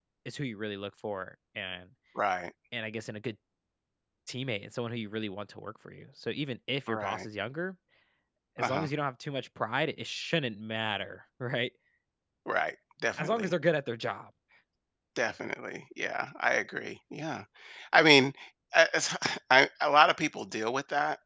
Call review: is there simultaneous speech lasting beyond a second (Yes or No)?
No